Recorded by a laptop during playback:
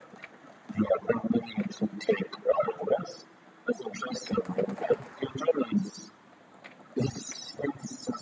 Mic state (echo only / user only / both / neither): echo only